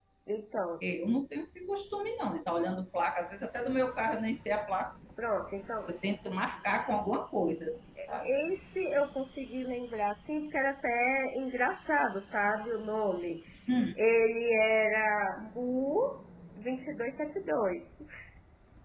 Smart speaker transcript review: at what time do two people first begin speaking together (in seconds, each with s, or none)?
none